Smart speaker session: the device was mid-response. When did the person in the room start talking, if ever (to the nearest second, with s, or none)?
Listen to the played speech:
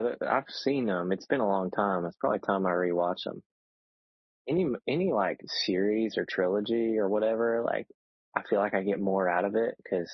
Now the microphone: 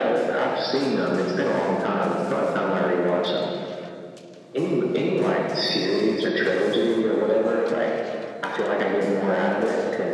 none